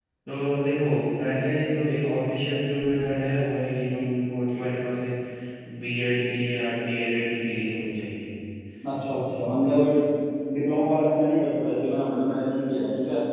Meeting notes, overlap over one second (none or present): none